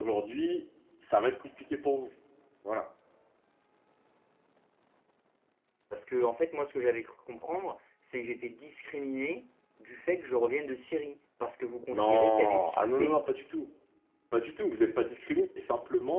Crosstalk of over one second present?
Yes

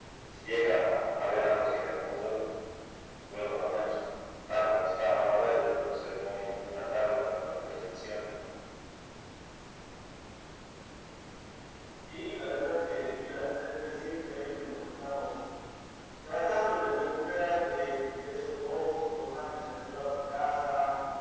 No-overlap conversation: Yes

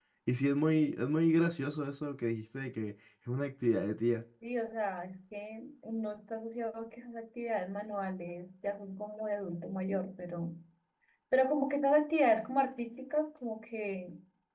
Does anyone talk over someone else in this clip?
No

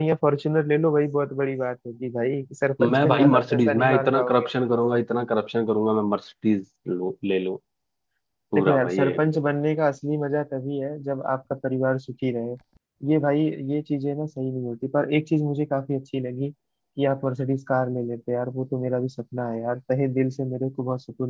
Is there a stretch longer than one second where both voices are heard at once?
Yes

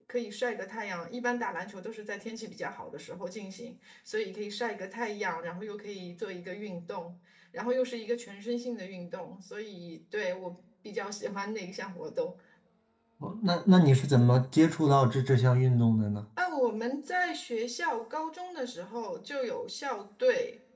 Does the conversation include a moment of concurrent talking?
No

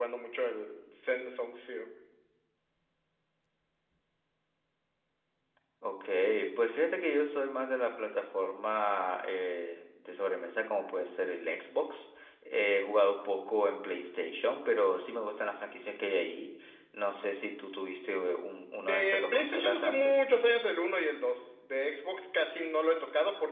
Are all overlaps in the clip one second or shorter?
No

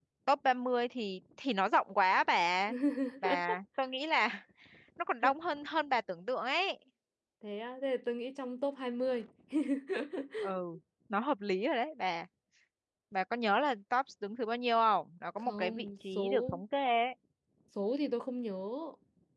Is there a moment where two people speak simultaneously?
Yes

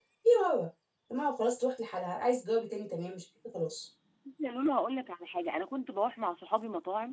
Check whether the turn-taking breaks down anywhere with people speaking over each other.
No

